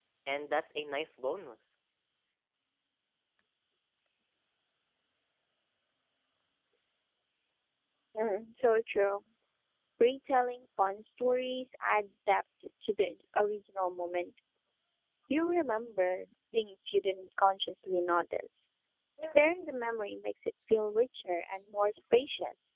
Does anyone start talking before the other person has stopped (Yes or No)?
No